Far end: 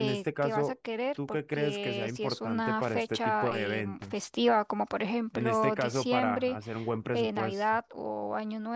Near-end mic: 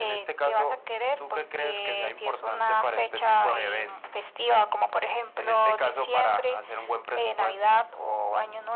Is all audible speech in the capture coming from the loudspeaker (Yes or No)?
Yes